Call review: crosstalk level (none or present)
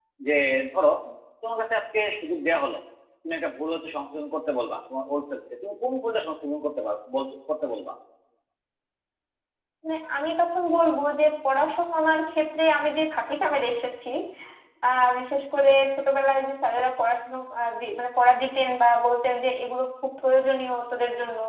none